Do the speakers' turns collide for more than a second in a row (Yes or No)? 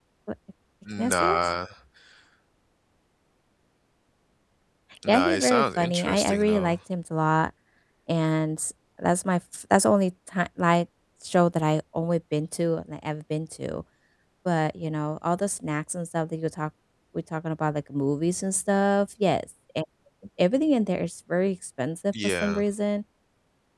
Yes